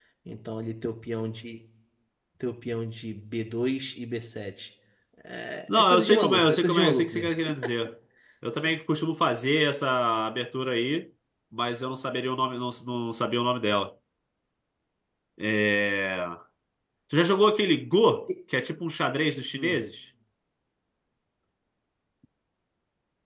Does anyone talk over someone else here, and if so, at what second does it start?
6 s

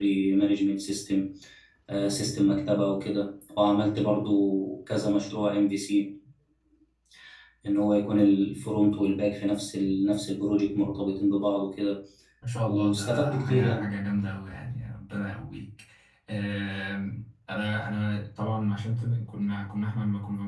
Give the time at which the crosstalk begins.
13 s

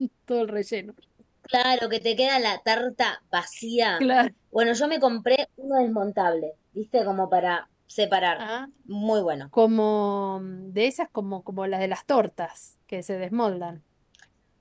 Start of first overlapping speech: none

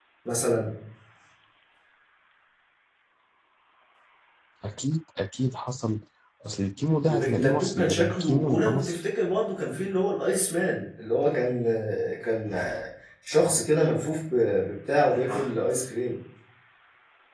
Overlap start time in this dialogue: 7 s

